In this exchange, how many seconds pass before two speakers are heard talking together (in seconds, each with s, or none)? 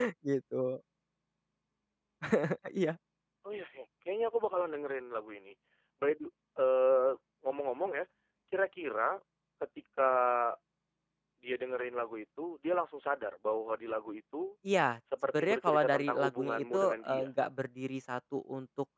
15.3 s